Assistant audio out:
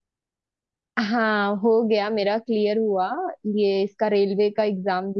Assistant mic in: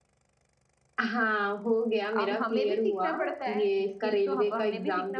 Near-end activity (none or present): present